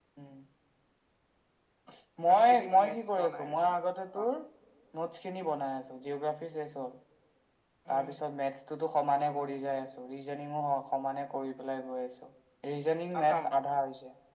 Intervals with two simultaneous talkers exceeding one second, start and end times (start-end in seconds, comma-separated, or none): 2.2-3.7